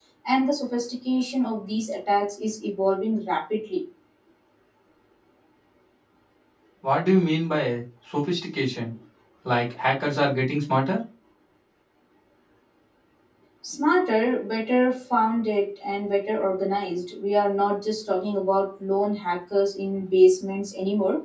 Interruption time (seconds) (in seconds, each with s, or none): none